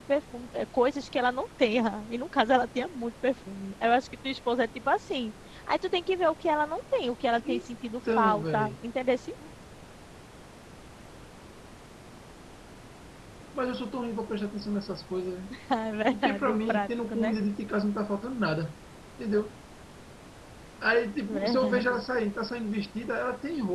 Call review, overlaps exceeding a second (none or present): present